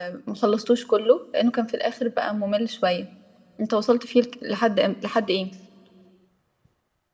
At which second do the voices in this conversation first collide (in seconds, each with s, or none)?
none